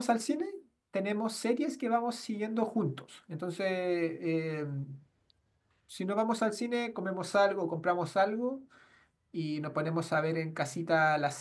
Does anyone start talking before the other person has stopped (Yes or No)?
No